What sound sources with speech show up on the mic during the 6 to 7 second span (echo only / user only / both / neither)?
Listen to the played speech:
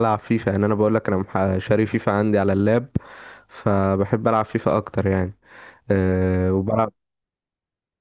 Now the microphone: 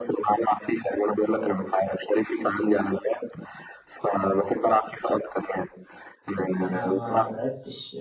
both